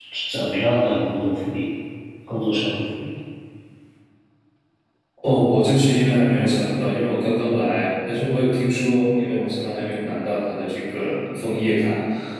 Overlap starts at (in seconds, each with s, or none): none